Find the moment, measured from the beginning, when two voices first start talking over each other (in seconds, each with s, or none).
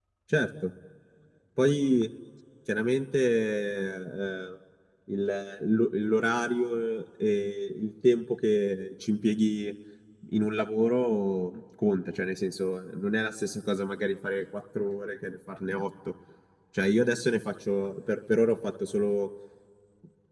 none